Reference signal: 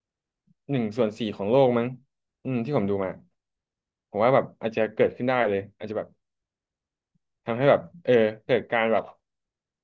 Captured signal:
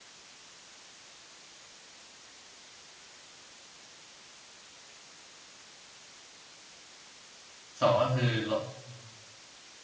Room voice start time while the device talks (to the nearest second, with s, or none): 8 s